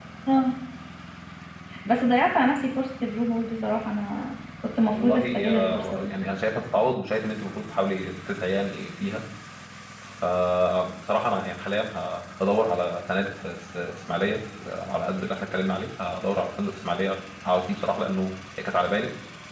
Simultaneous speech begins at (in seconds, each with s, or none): 4.8 s